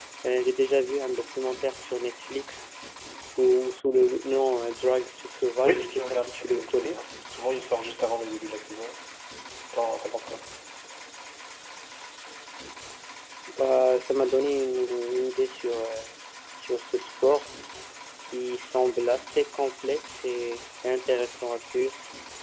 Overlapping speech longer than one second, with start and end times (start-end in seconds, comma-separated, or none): 5.6-7.0